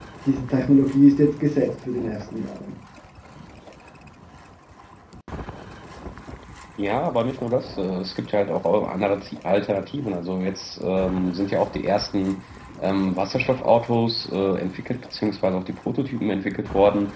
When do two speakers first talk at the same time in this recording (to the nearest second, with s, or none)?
none